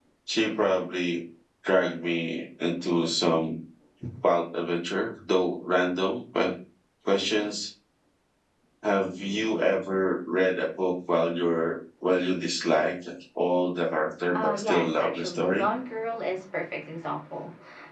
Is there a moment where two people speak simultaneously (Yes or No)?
Yes